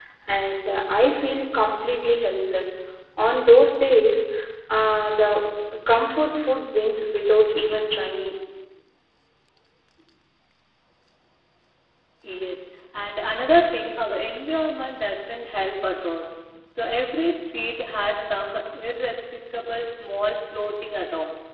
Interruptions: none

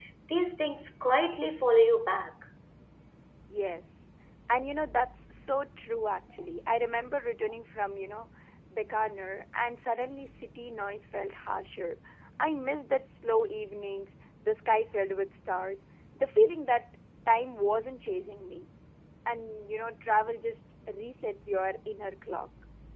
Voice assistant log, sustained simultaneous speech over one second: none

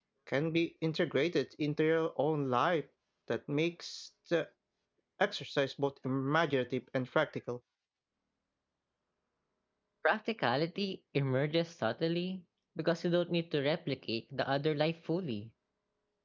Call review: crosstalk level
none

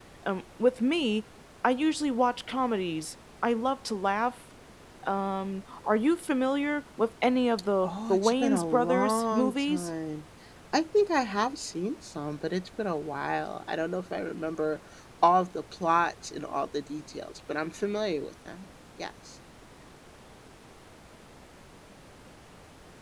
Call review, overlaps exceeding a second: present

